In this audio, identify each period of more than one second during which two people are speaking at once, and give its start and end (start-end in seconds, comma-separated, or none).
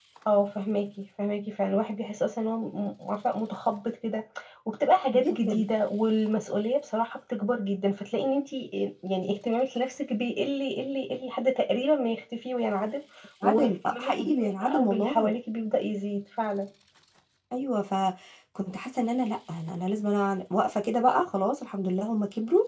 13.4-15.3